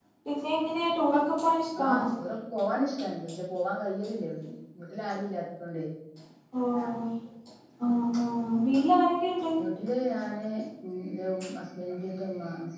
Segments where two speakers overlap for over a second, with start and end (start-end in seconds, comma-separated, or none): none